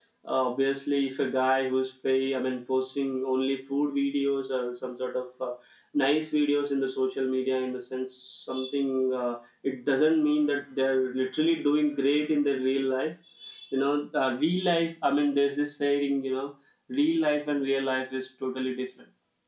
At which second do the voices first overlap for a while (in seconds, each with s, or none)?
none